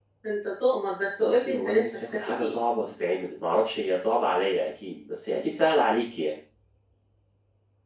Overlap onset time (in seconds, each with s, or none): 1.2 s